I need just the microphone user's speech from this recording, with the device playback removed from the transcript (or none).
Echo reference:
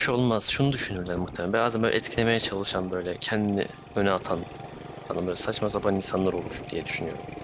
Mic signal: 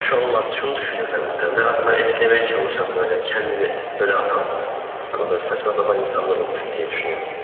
none